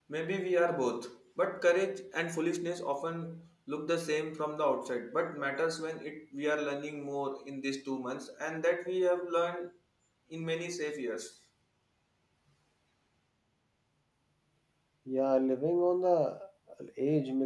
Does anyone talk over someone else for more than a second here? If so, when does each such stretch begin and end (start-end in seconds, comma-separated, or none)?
none